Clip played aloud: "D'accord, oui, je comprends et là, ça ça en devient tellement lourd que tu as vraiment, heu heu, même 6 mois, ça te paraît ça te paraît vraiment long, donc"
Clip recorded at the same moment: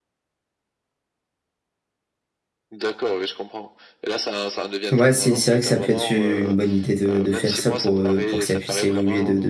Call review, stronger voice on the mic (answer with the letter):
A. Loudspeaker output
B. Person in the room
B